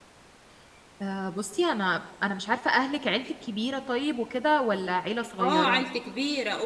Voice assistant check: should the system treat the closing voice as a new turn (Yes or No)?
Yes